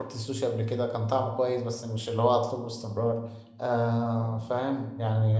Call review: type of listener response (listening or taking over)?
listening